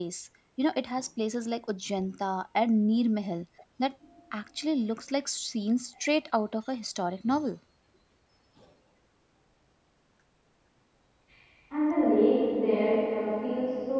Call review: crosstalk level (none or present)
none